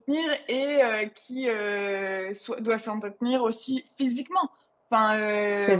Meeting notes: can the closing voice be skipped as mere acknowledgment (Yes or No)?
Yes